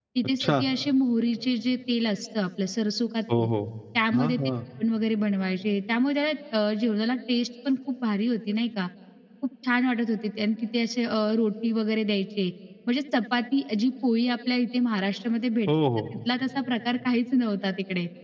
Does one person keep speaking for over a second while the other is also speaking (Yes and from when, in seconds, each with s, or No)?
No